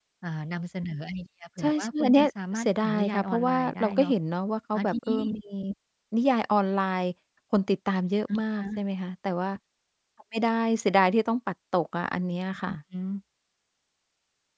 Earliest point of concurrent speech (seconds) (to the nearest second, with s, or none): 2 s